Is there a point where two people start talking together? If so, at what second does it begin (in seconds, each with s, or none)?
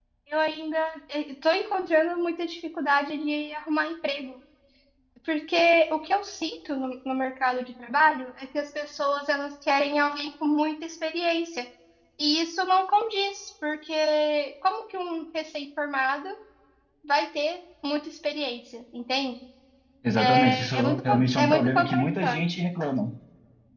20.1 s